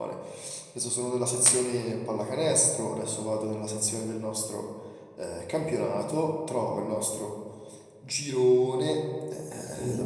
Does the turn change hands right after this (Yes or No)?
No